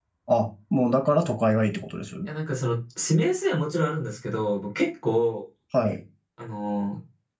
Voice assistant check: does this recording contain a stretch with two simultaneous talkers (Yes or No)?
No